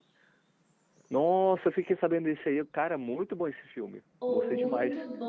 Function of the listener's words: taking over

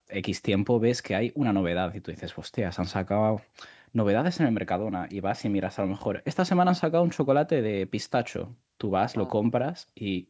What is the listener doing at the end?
listening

